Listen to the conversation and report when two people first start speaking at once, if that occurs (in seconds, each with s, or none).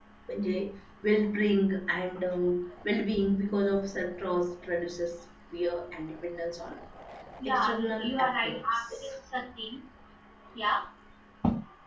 7.5 s